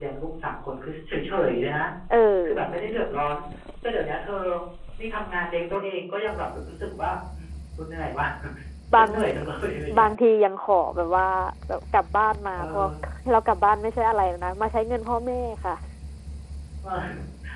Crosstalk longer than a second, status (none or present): none